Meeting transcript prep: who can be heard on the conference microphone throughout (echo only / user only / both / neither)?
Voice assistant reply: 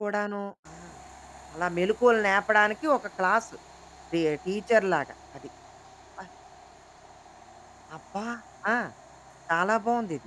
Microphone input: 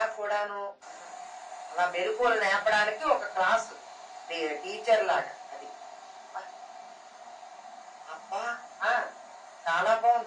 echo only